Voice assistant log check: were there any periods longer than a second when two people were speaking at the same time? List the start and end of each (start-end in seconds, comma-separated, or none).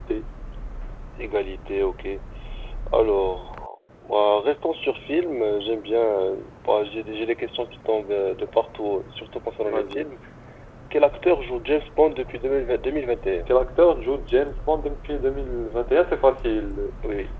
none